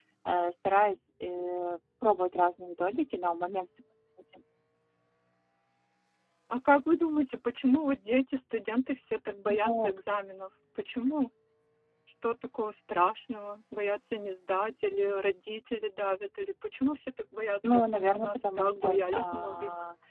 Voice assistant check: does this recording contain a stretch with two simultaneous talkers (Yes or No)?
Yes